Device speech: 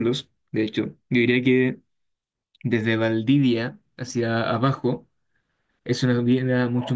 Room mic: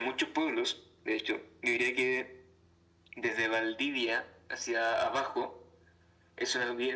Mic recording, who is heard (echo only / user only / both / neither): echo only